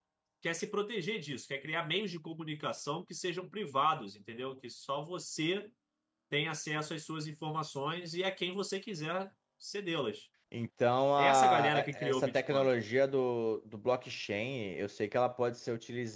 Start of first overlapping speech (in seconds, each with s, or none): 11.2 s